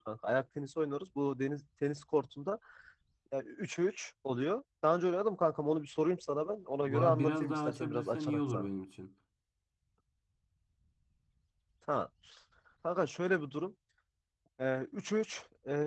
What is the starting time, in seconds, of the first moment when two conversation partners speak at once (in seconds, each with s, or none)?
6.8 s